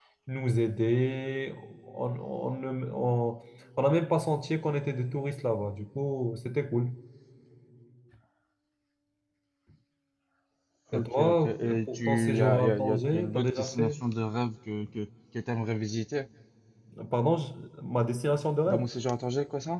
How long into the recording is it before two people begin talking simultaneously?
11 s

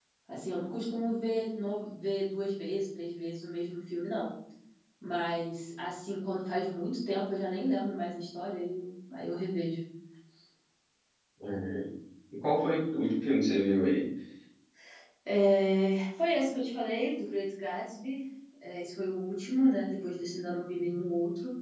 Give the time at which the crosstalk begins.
none

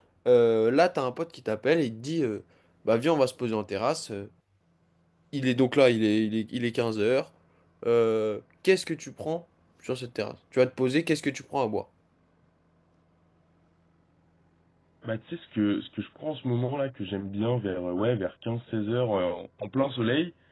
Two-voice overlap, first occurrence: none

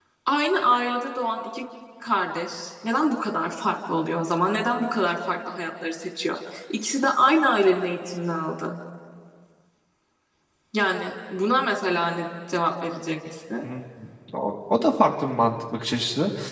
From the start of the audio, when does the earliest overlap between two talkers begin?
none

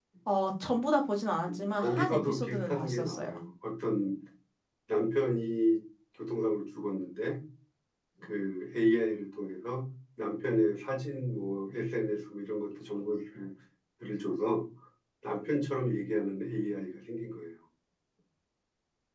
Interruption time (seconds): 1 s

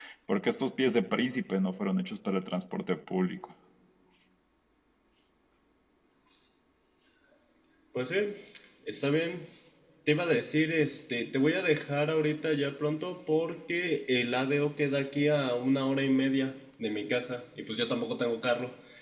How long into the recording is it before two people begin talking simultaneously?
none

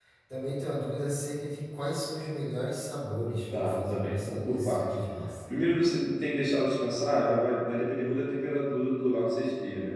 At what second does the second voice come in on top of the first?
4 s

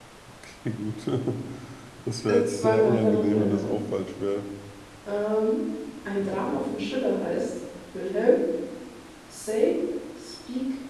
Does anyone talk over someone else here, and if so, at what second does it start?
2 s

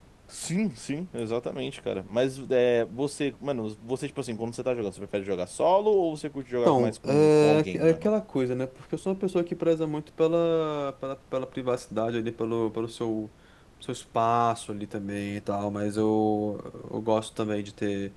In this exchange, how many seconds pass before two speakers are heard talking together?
7 s

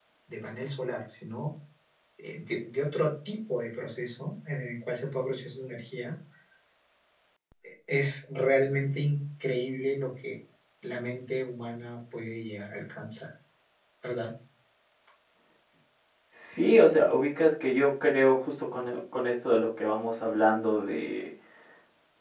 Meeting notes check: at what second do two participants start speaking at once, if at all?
none

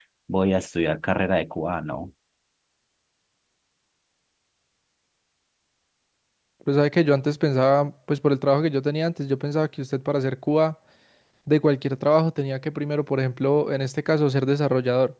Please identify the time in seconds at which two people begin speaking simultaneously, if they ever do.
none

